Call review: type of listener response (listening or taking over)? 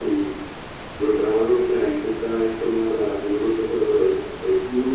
taking over